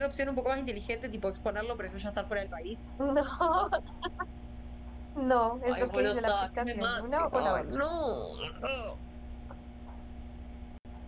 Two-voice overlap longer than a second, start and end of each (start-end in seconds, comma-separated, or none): 5.7-7.8